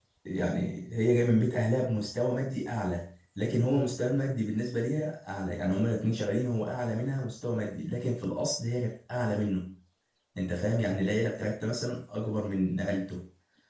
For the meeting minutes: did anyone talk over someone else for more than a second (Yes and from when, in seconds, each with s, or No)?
No